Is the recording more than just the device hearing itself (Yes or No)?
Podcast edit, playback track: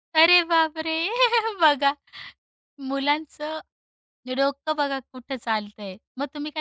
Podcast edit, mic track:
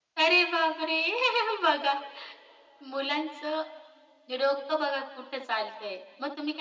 No